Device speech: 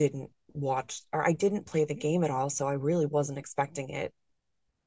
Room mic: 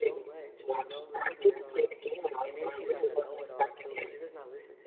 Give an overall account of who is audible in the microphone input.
both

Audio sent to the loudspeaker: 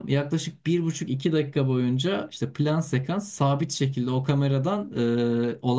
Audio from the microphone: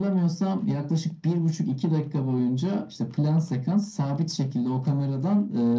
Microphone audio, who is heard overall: echo only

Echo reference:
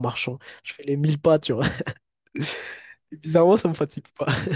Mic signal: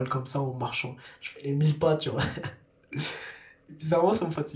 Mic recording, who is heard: echo only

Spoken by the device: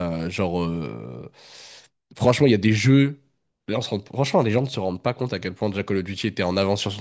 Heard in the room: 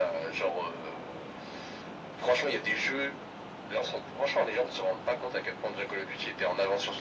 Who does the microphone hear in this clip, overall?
echo only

